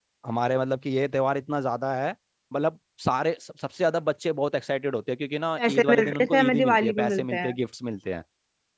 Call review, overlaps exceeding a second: present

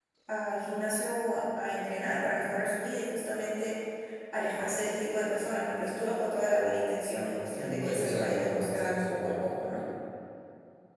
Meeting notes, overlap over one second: present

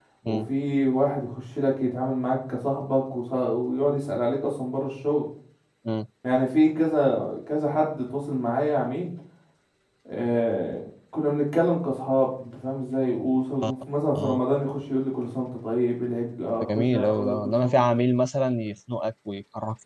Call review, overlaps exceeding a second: present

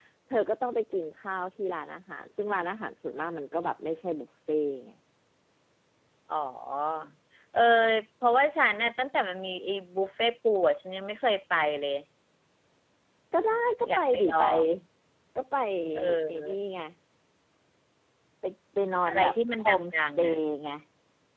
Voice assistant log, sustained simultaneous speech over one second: present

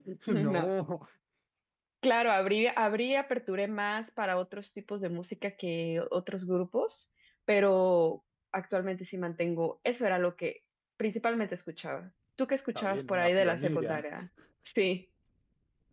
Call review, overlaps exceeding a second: present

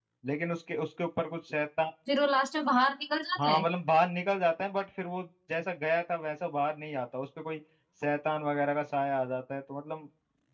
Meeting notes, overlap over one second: none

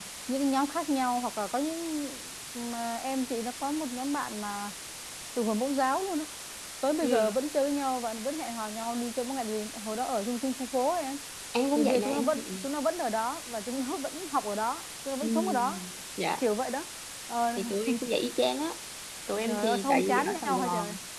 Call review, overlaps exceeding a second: present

